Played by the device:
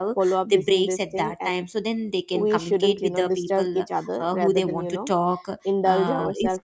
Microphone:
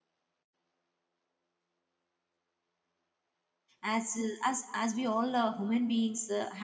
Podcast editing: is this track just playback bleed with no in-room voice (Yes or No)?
No